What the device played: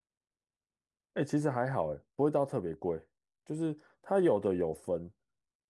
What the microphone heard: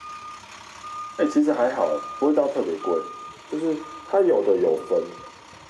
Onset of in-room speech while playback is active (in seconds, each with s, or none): none